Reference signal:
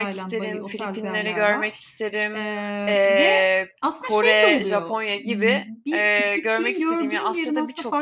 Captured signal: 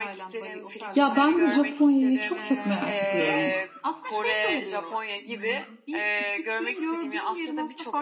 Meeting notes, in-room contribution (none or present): present